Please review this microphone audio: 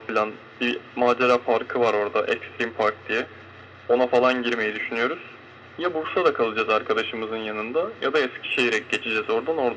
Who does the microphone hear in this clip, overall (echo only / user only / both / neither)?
echo only